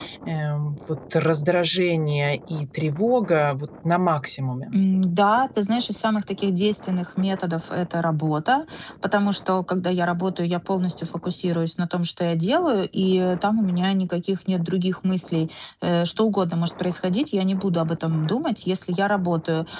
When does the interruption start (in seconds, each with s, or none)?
none